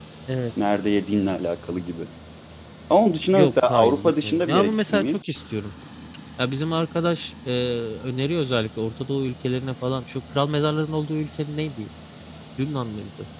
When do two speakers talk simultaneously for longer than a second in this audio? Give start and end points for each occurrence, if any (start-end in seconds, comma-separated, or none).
3.3-5.3